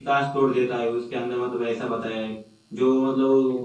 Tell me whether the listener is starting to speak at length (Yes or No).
No